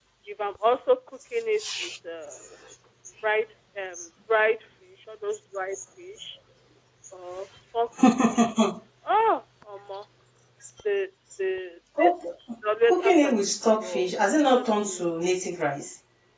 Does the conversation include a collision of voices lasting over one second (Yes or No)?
Yes